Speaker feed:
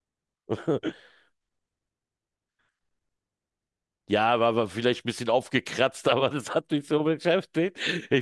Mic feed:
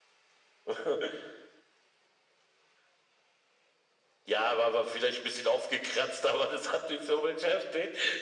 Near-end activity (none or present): none